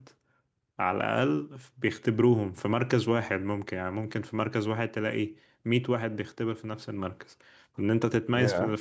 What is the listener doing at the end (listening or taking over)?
listening